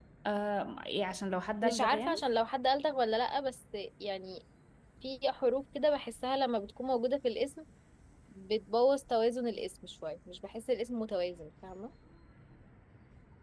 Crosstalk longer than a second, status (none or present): none